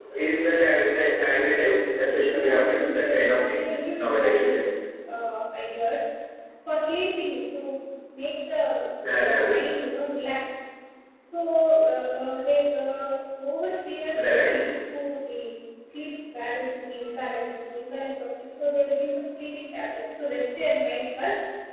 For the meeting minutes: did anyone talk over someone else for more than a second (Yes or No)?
Yes